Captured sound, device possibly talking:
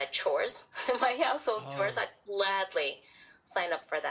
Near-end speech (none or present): present